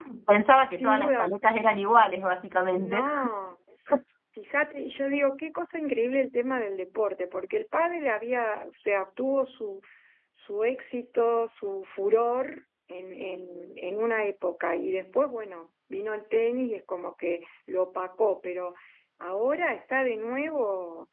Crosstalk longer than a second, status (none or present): none